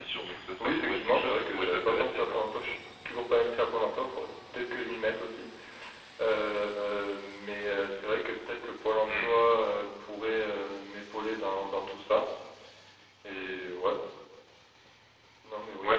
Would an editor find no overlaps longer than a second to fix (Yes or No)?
No